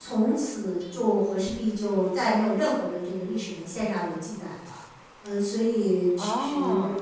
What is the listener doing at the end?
listening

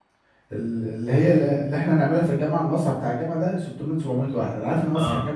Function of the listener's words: listening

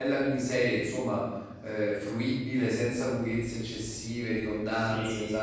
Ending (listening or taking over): taking over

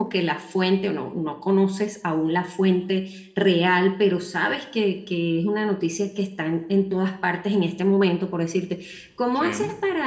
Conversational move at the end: listening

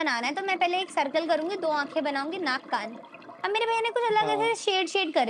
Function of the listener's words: listening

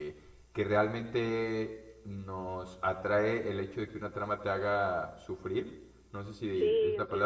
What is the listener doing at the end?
listening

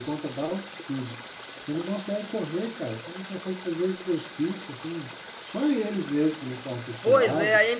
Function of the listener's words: taking over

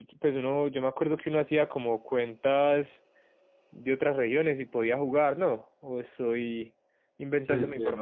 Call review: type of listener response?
taking over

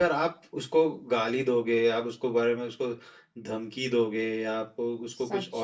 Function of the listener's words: listening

